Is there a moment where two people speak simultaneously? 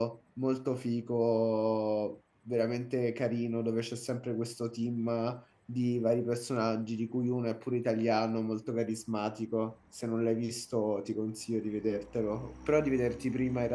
No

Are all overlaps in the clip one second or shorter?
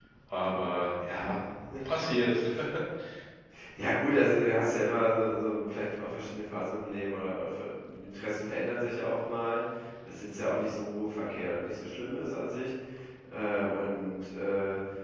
Yes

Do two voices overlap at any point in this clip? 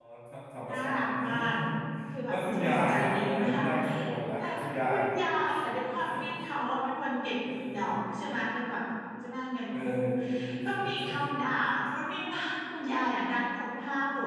Yes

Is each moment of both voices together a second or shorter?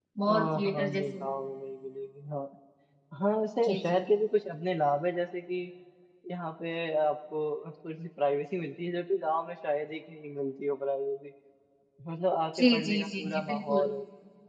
No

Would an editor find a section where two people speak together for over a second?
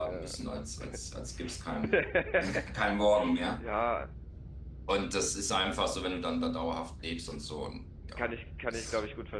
No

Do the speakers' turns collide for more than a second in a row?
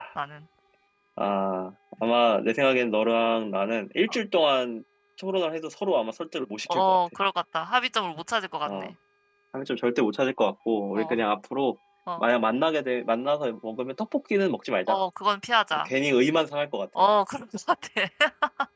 No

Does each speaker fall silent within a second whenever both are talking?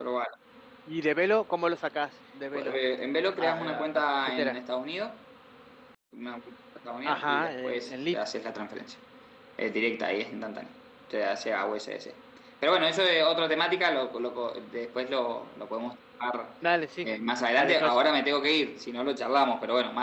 No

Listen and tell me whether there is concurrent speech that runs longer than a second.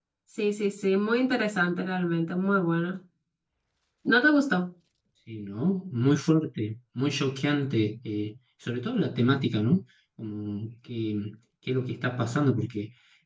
No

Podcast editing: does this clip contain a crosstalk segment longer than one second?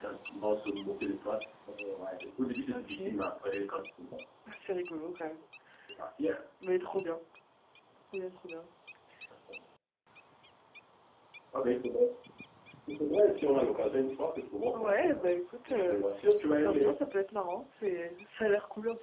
Yes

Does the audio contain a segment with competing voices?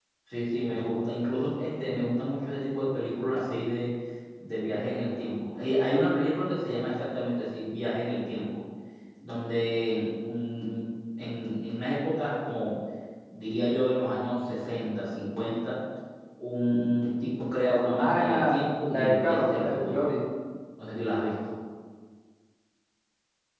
Yes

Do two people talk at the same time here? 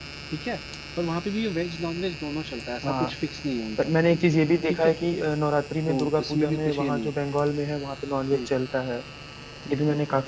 Yes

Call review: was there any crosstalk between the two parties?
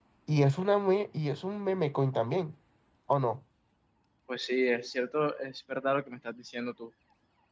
No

